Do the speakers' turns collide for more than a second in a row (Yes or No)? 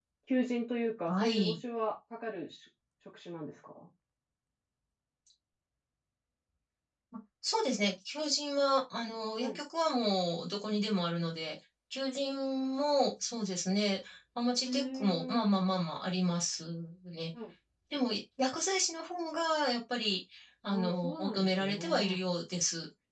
Yes